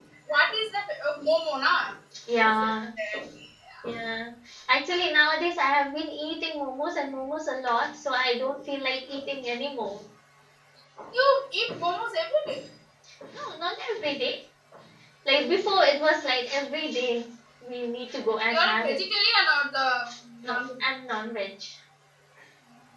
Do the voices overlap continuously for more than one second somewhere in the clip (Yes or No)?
No